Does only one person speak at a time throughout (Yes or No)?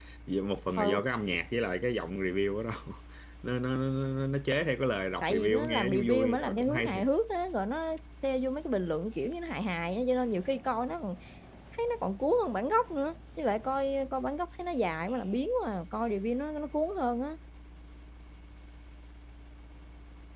No